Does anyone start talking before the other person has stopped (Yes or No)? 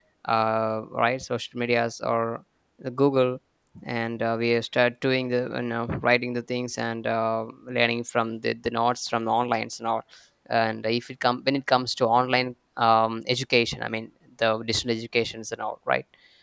No